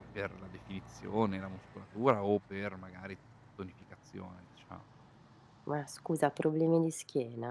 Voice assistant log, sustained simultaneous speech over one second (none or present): none